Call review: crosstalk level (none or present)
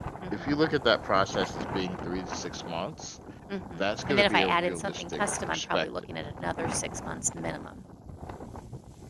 present